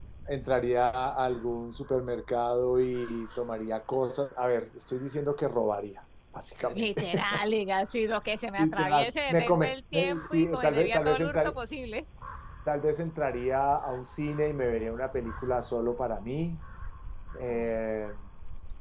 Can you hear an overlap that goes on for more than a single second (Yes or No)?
Yes